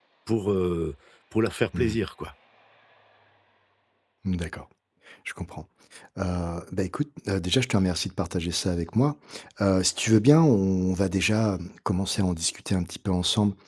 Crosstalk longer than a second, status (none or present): none